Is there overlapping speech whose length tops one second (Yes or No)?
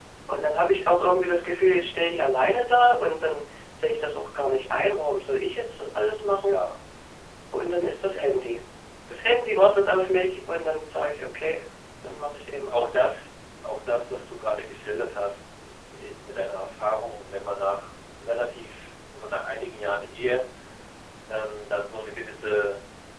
No